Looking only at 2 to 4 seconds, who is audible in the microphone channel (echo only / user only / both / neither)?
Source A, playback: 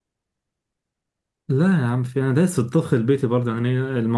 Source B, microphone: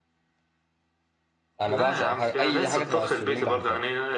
both